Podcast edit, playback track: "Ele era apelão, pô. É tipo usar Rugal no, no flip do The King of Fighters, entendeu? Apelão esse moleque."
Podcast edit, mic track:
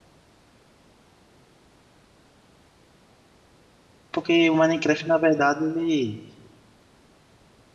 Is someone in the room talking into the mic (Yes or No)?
Yes